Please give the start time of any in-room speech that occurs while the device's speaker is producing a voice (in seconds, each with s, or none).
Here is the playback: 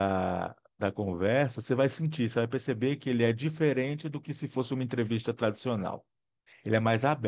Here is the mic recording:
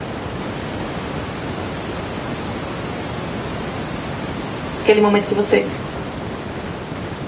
4.8 s